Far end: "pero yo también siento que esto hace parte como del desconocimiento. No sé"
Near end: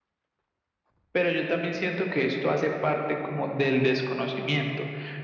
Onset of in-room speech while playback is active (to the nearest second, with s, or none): none